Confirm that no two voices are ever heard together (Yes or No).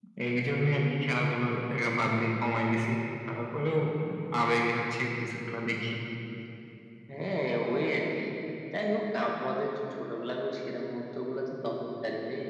Yes